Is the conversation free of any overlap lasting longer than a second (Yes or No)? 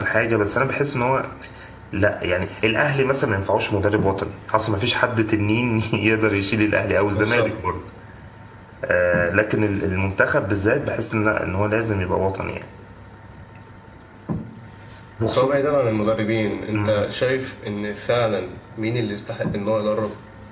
Yes